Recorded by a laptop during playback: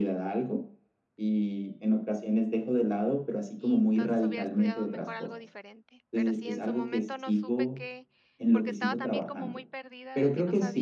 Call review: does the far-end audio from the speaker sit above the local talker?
Yes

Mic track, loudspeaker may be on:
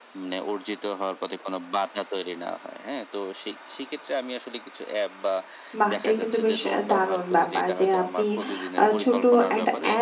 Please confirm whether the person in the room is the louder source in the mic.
Yes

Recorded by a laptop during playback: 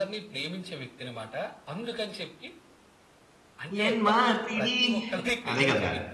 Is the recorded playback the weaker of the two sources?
Yes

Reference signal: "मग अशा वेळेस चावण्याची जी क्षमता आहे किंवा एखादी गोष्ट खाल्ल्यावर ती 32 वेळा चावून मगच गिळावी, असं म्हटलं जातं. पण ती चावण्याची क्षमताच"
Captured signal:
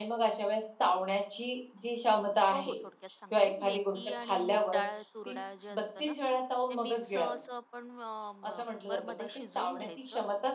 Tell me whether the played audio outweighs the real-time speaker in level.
Yes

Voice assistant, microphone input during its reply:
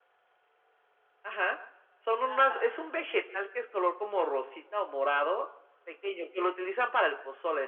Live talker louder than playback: No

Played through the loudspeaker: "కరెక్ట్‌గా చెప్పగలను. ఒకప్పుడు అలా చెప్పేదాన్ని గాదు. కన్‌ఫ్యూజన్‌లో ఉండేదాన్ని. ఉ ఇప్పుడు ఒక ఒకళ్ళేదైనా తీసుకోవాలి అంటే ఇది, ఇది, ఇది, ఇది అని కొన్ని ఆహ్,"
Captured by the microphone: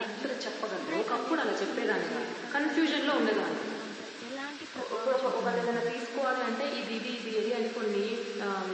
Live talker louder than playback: No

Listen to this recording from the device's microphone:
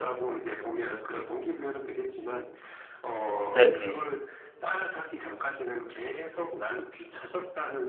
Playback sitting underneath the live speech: Yes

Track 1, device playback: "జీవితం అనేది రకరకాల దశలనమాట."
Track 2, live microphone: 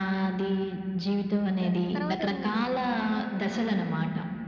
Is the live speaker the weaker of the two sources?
Yes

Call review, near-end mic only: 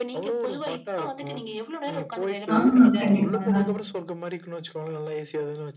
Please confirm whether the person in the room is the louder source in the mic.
Yes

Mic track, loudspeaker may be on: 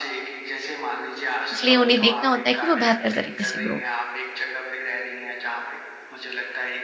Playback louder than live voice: No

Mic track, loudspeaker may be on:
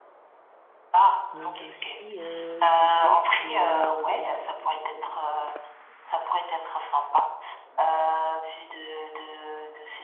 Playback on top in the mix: Yes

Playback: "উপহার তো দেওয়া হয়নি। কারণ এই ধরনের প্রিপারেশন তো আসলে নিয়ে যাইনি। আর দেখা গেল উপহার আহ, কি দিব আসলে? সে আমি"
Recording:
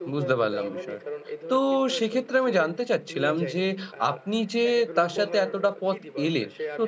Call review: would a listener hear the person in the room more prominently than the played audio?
Yes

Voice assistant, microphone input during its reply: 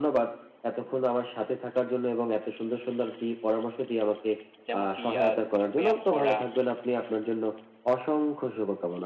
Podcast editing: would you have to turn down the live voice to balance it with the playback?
No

